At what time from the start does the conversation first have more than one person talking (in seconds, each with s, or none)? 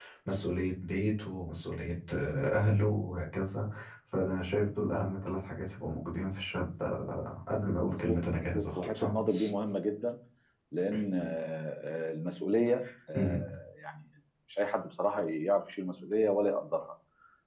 7.8 s